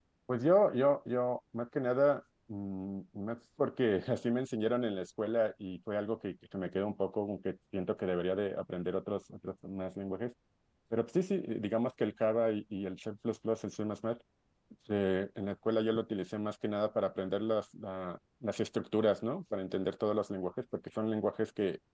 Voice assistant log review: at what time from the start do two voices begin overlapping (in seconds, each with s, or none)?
none